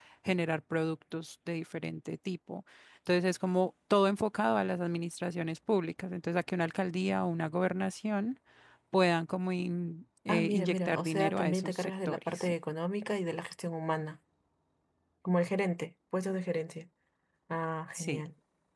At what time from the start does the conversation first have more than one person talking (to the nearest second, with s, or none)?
10 s